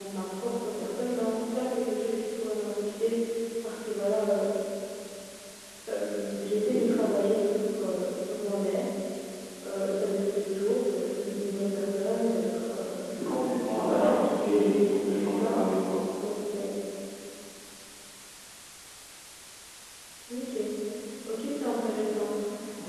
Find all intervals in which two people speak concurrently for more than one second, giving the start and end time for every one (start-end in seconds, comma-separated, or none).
13.8-15.6